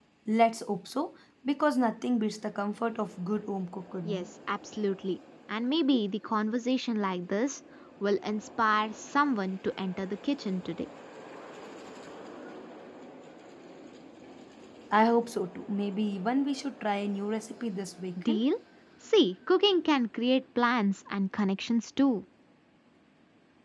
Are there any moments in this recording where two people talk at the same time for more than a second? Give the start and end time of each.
none

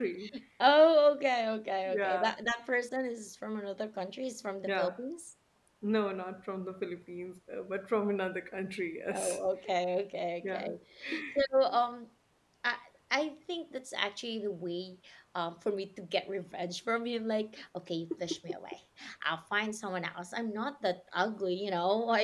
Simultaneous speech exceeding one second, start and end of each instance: none

